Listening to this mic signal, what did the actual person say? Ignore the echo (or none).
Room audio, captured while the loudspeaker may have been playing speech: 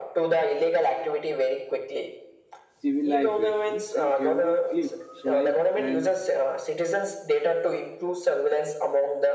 civilizations. In every click, swipe, and